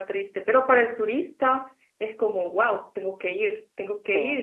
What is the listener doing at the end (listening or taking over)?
listening